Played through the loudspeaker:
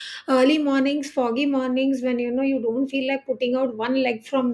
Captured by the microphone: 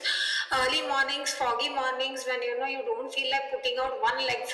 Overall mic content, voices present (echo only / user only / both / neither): echo only